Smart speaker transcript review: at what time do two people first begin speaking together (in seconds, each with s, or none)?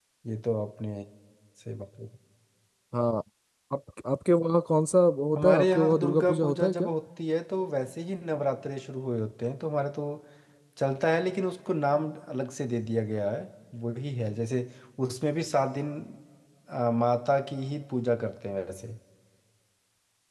5.4 s